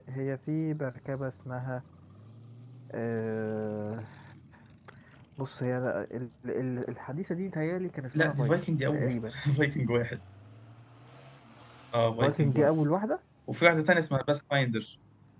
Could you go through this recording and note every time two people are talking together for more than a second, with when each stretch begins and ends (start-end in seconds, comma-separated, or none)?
8.1-9.4